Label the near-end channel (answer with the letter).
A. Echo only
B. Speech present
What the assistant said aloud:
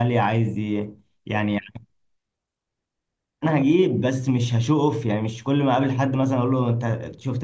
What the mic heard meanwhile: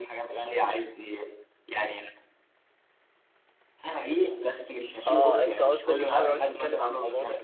B